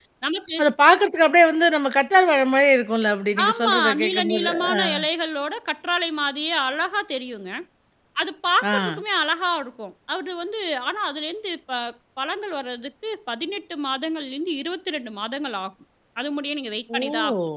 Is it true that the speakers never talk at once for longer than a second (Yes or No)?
No